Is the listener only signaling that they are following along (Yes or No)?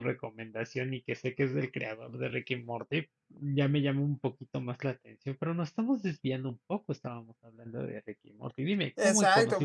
No